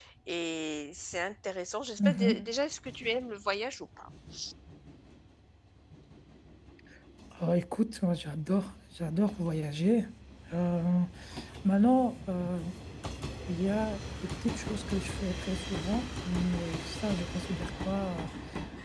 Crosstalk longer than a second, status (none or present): none